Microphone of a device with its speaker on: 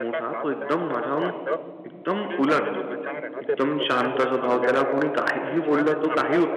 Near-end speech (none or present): present